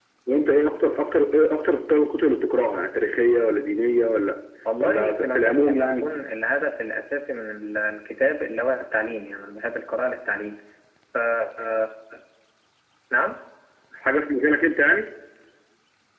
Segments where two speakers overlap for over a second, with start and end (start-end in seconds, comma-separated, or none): 4.8-6.0